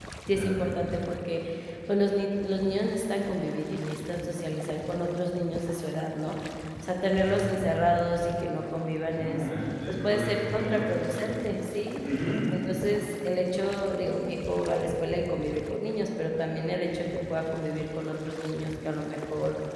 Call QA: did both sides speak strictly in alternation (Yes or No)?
No